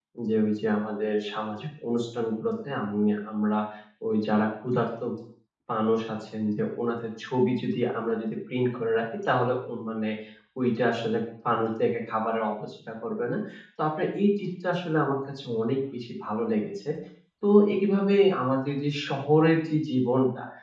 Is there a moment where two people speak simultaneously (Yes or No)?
No